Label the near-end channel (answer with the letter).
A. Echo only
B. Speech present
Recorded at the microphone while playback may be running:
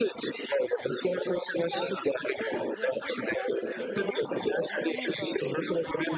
B